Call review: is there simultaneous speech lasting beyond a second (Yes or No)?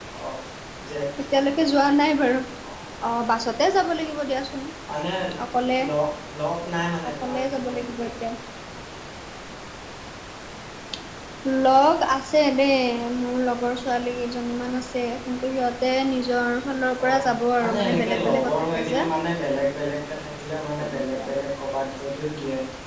Yes